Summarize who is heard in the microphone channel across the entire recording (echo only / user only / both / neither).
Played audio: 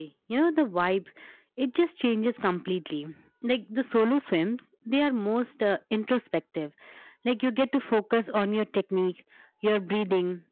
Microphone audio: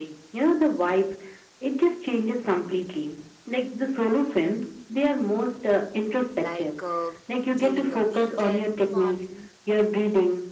both